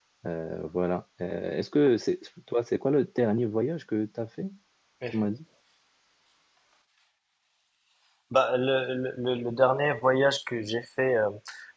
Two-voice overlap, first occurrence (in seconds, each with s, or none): none